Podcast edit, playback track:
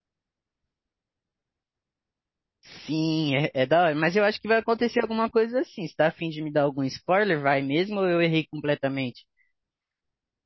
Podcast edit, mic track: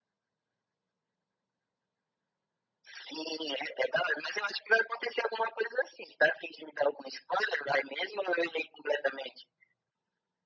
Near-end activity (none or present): none